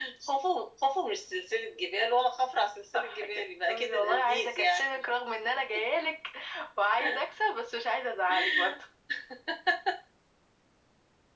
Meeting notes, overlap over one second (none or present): present